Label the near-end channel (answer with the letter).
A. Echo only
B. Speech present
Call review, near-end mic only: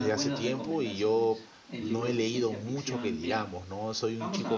B